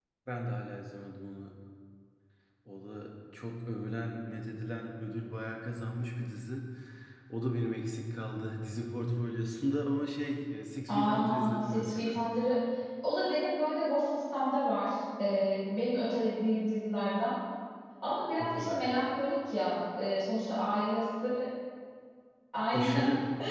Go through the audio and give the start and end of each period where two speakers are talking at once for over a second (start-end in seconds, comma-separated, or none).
10.9-12.2